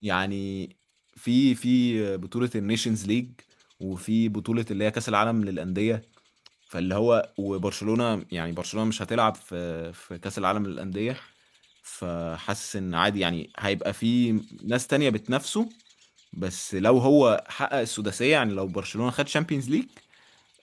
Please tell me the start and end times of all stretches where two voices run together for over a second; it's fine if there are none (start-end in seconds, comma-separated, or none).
none